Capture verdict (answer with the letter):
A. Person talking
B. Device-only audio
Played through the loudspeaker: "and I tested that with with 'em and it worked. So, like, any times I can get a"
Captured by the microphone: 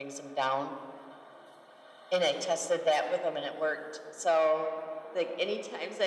B